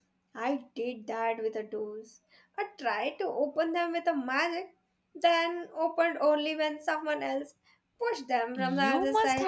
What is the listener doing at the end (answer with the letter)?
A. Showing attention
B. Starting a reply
B